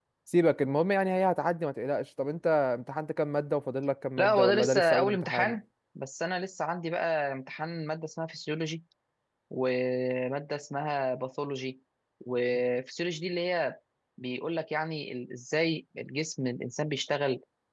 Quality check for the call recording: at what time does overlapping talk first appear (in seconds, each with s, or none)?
4.2 s